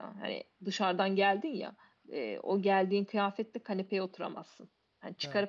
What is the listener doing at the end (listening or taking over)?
listening